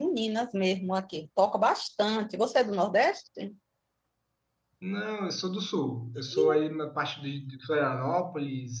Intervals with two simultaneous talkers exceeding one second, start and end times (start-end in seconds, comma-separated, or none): none